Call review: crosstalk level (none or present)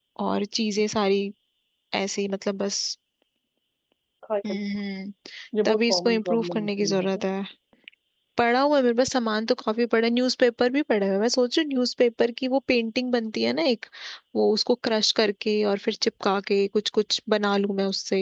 present